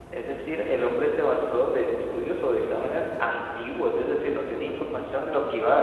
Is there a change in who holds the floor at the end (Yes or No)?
No